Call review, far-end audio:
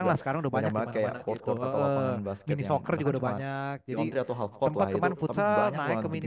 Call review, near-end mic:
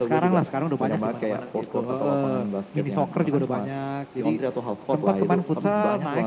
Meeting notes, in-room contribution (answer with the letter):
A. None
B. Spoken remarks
A